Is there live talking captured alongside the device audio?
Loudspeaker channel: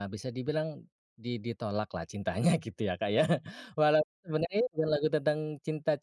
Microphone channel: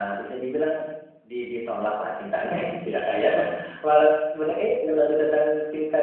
No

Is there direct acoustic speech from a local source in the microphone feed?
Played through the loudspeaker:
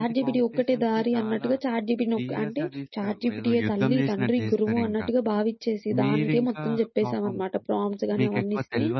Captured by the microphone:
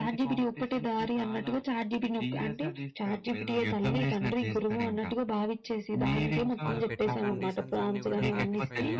Yes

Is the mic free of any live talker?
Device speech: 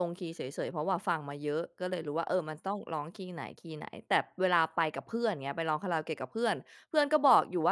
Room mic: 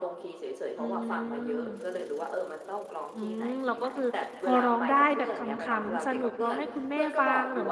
No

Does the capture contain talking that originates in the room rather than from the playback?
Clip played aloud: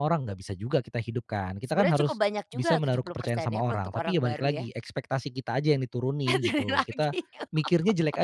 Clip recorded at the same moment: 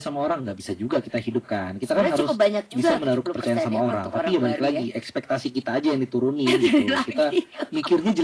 No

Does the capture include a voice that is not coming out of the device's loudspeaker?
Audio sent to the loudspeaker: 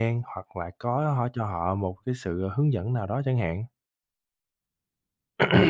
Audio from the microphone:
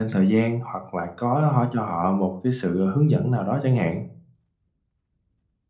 No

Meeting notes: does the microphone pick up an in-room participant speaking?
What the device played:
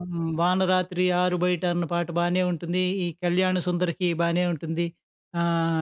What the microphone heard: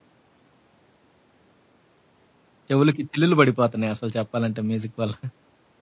Yes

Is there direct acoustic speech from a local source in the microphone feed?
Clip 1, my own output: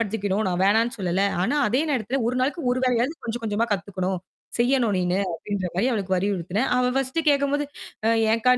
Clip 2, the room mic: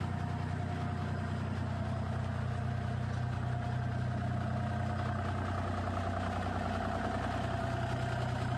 No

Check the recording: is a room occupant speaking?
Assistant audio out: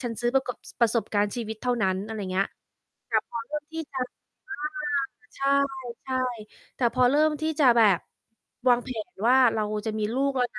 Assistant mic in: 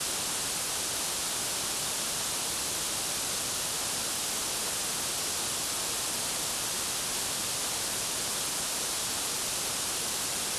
No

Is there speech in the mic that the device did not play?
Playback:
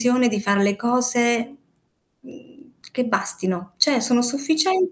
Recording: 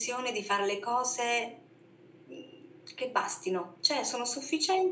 No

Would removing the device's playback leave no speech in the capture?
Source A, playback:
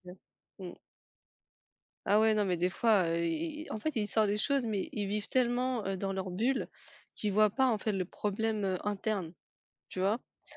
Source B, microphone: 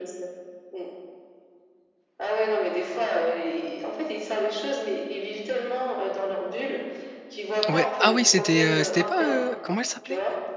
No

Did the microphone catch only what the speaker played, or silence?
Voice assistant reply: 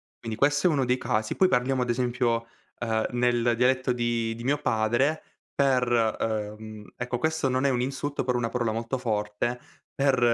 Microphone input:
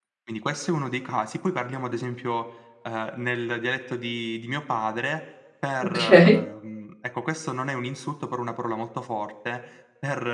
No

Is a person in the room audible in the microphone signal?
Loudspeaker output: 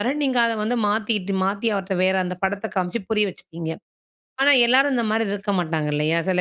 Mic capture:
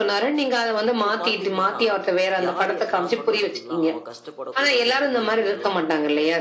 Yes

